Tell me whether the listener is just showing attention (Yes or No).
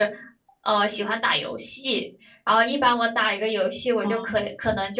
Yes